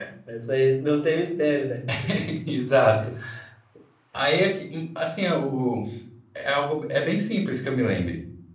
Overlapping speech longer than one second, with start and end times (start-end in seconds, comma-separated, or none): none